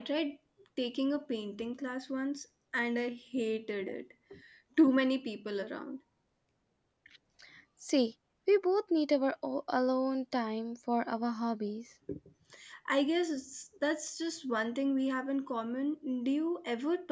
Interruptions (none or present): none